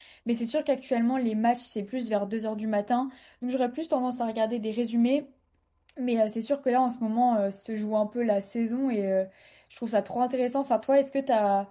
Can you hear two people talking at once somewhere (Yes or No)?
No